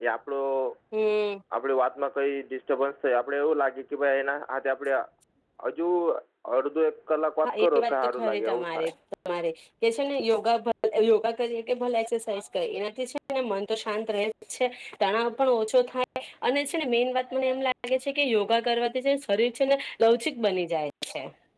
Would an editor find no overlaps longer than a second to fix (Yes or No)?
No